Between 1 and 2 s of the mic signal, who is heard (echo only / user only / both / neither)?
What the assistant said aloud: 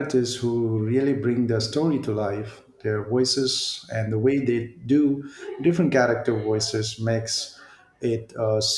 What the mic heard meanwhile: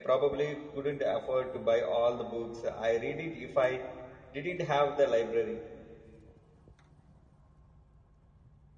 user only